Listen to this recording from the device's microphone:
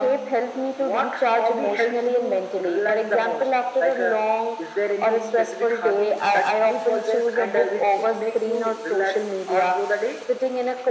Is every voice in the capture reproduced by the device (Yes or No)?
Yes